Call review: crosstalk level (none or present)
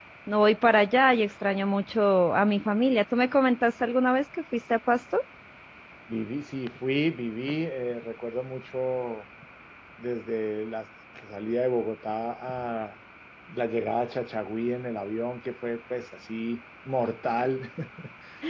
none